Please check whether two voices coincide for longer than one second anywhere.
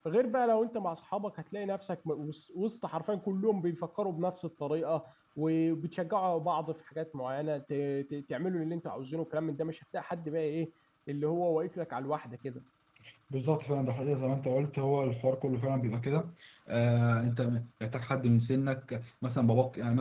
No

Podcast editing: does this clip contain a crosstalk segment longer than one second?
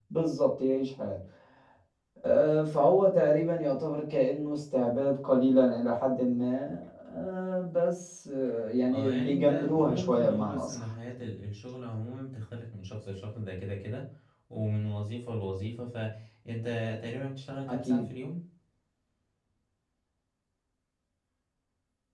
Yes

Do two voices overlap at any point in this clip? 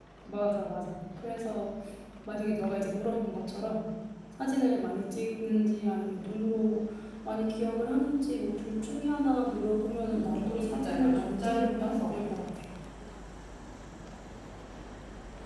Yes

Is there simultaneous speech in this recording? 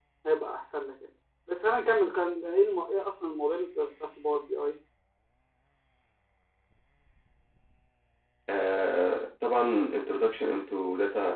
No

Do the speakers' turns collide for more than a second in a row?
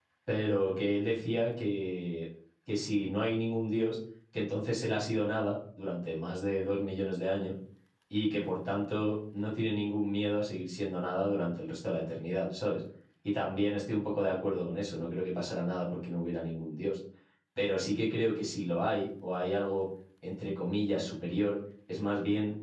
No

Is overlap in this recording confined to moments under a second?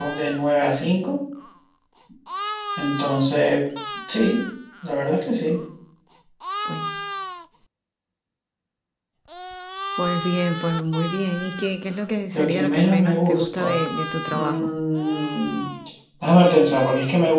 No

